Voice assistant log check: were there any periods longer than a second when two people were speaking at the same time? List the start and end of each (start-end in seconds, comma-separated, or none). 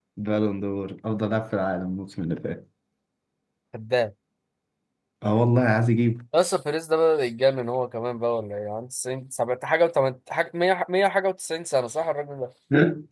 none